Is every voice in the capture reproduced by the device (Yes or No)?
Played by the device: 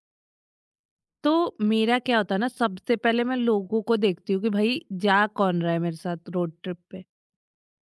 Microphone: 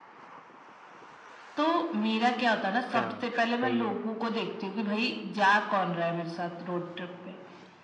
No